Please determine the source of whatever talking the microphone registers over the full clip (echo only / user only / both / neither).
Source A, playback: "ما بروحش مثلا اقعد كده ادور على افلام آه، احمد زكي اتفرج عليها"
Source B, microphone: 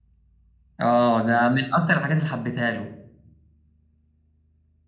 user only